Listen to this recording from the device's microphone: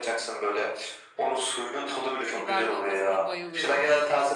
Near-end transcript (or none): Biber dolmasına bayılıyorum.